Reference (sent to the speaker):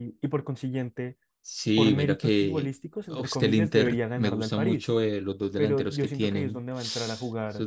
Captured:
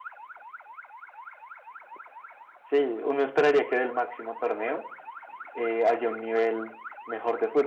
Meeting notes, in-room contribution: present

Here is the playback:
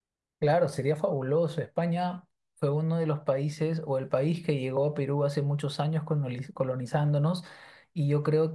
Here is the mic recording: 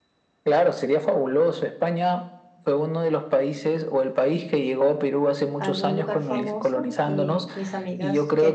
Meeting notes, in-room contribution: present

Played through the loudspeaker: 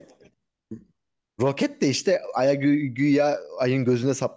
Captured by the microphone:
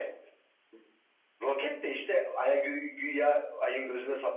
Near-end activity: none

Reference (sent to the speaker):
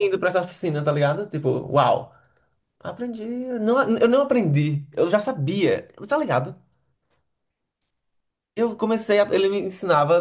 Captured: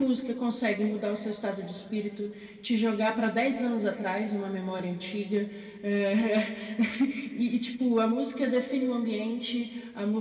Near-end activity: present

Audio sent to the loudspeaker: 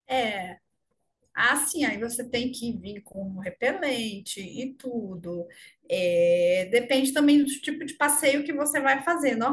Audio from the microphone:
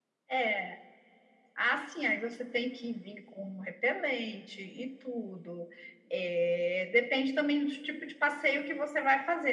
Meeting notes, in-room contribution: none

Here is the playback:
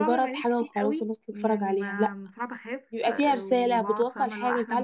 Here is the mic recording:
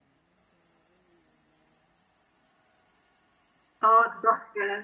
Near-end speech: present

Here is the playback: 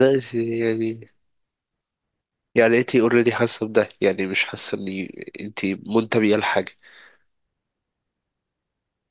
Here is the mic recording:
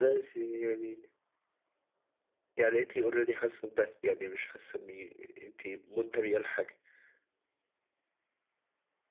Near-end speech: none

